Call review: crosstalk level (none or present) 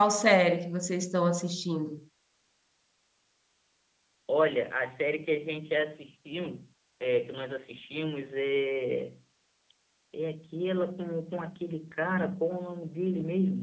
none